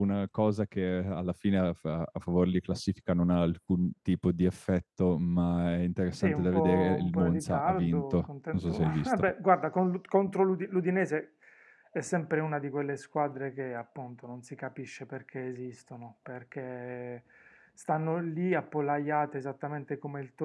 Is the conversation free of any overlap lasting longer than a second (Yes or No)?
No